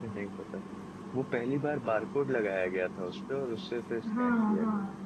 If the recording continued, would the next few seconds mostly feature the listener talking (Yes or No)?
Yes